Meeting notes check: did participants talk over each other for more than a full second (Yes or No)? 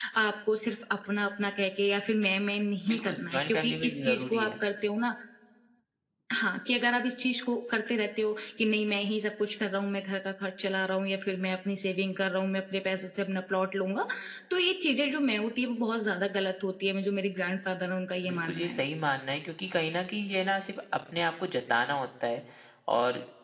Yes